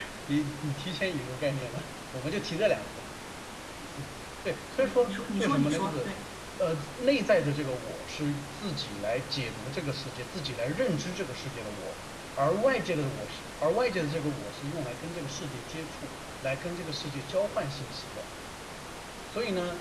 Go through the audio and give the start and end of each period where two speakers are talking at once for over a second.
4.8-6.1

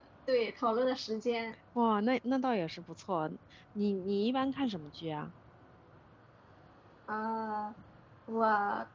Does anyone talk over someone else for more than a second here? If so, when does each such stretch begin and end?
none

